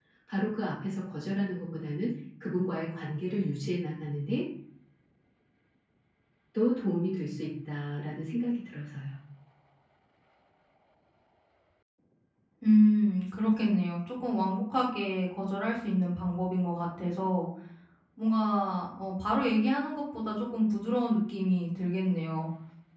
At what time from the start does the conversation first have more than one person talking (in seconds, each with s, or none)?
none